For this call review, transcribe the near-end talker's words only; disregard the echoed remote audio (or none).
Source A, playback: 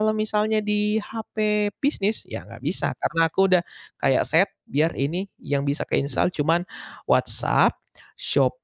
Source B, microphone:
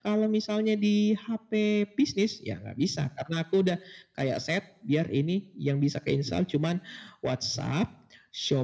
none